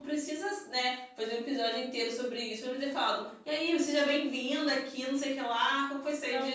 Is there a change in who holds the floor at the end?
No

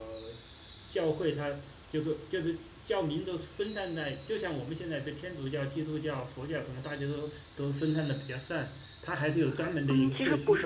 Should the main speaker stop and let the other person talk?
Yes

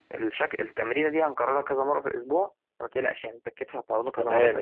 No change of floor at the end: No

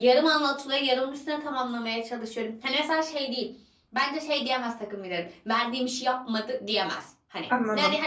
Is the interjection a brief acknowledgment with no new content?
Yes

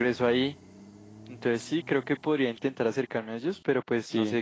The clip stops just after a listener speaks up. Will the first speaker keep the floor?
No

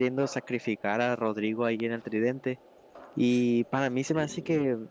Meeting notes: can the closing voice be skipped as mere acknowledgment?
Yes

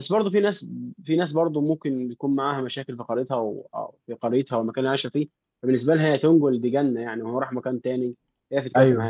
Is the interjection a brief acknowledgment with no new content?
Yes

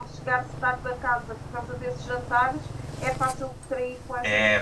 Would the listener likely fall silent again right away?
No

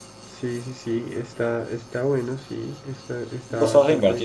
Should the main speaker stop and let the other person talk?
Yes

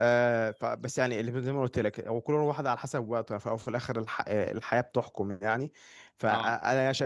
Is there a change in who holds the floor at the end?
No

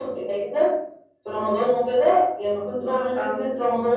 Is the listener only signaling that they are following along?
Yes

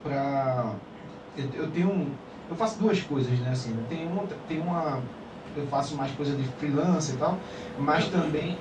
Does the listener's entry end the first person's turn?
No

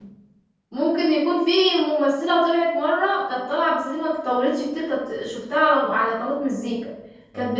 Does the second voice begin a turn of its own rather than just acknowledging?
No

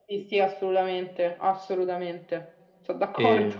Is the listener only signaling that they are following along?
No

